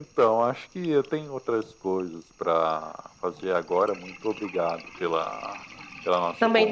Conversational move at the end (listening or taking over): taking over